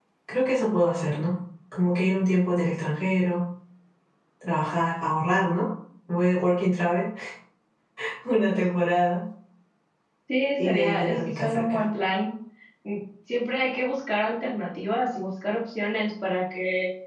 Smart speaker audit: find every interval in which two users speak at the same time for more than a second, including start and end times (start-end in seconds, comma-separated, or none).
10.6-11.8